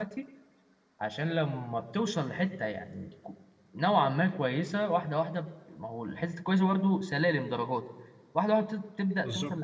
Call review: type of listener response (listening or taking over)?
listening